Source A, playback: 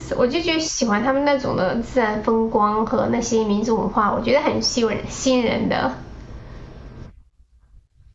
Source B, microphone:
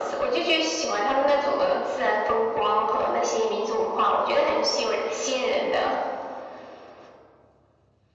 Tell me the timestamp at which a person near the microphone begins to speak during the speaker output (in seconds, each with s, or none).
none